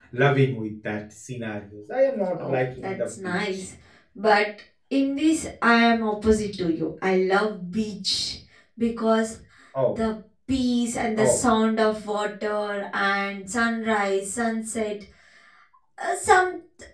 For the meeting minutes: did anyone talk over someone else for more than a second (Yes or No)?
Yes